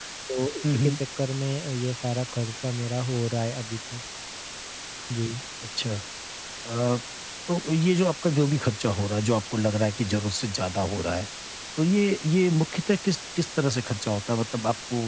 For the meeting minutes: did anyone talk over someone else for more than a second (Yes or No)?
No